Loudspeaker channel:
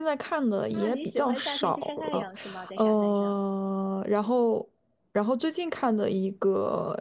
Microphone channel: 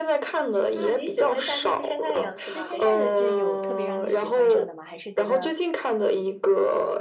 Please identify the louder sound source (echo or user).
echo